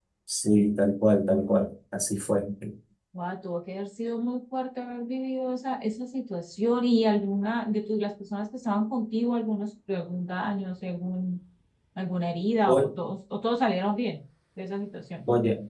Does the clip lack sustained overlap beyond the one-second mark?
Yes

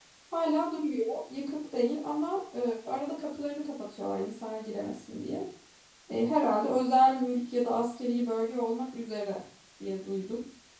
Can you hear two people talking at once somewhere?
No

